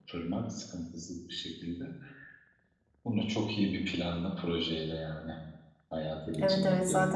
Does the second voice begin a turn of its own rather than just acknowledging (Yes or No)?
Yes